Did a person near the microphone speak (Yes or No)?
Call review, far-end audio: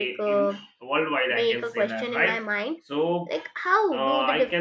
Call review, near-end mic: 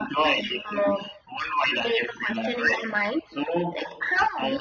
No